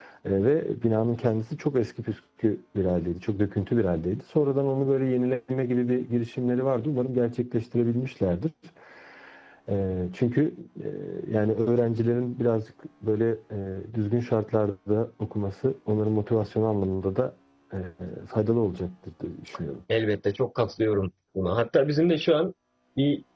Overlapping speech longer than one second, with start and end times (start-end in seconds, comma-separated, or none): none